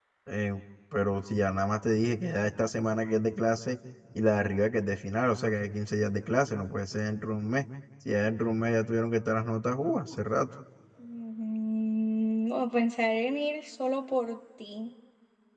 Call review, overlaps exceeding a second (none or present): none